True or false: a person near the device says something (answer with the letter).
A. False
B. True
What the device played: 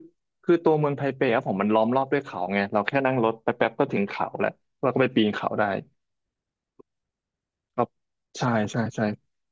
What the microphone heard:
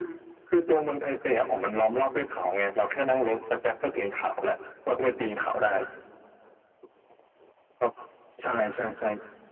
A